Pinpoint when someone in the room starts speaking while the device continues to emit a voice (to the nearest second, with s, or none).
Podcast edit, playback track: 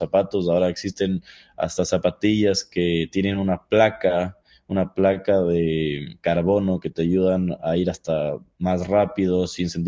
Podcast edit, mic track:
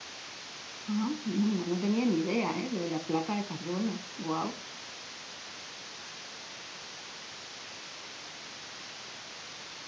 1 s